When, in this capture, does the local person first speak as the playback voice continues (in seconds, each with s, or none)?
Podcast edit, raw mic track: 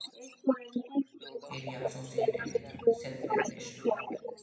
1.5 s